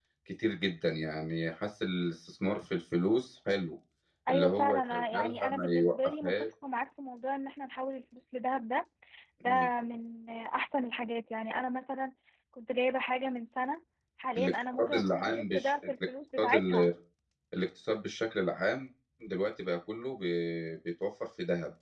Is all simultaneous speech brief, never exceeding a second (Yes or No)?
No